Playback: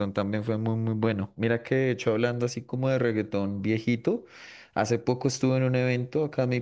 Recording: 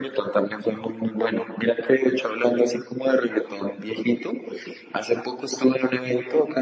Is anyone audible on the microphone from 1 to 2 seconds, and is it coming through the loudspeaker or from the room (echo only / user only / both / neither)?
echo only